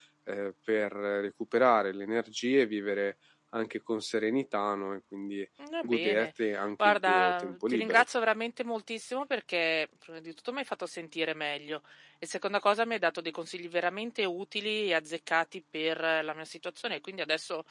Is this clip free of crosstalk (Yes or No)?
No